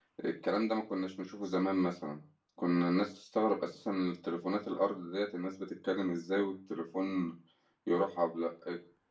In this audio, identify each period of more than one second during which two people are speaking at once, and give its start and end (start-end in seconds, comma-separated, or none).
none